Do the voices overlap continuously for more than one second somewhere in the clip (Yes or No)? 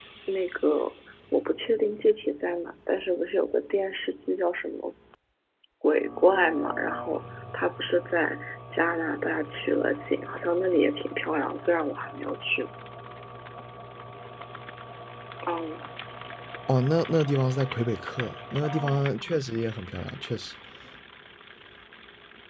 No